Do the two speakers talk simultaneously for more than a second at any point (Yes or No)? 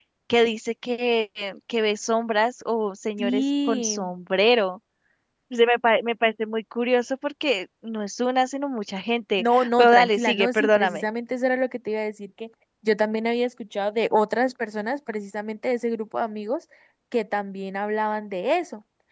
Yes